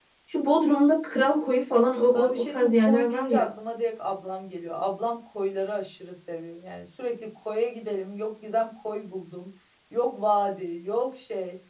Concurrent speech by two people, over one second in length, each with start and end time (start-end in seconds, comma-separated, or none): 2.1-3.5